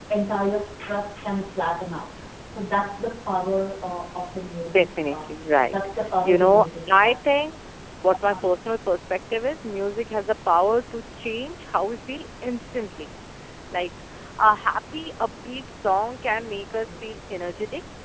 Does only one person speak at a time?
No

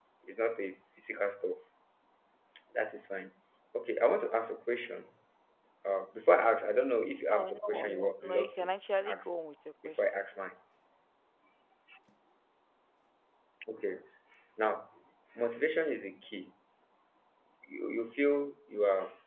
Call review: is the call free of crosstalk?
No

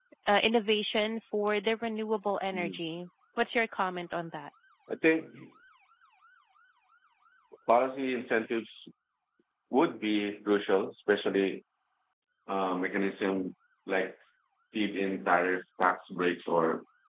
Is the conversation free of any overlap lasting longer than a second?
Yes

